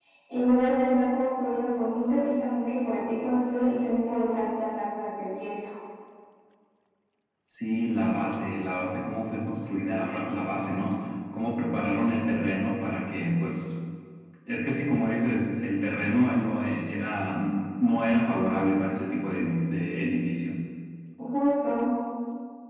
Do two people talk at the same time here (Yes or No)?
No